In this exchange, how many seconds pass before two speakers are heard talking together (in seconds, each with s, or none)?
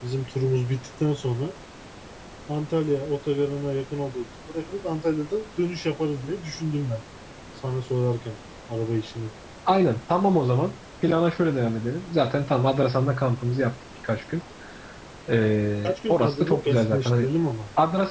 15.8 s